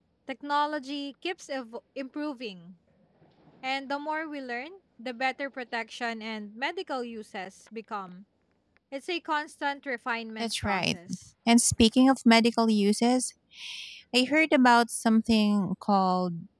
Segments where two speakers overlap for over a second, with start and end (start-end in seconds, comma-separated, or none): none